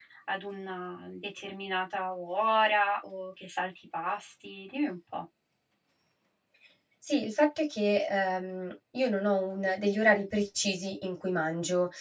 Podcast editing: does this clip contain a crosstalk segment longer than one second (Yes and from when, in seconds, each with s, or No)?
No